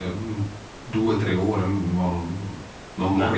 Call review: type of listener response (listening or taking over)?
listening